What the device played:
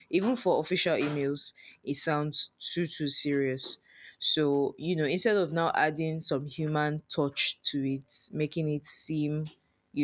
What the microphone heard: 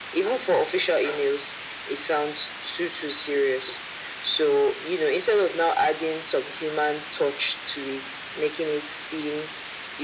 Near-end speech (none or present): none